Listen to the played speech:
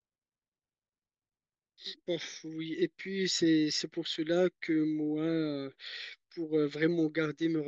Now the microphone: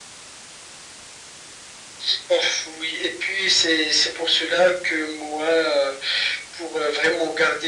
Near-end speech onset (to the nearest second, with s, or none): none